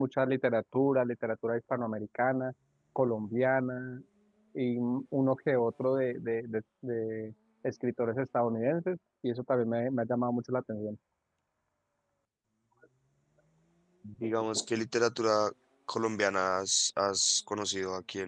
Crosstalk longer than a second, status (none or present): none